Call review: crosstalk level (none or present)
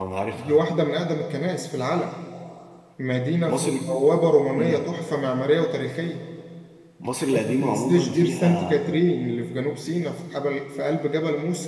present